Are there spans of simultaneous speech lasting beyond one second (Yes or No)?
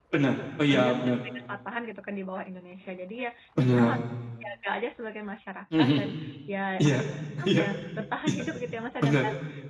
No